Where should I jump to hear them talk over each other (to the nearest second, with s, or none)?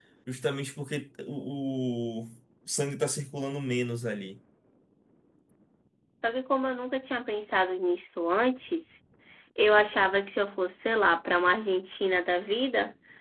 none